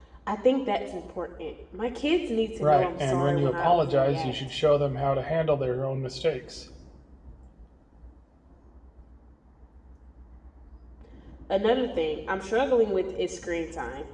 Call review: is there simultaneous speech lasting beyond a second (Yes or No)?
Yes